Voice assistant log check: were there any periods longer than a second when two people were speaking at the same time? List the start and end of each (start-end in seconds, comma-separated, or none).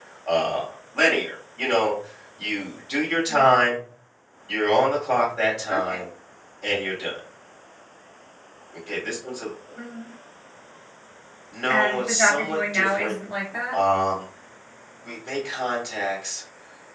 11.7-13.1